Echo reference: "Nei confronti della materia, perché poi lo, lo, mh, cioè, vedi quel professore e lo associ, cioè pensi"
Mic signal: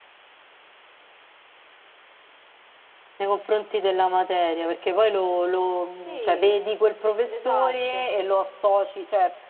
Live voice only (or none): sì, esatto.